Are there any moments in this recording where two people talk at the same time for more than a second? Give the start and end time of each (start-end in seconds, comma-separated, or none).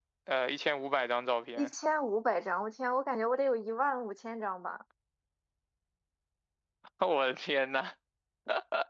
none